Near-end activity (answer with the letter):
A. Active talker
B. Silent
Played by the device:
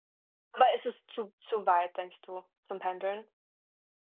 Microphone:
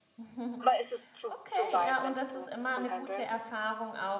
A